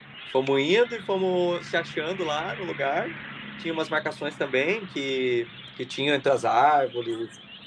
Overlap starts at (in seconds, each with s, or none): none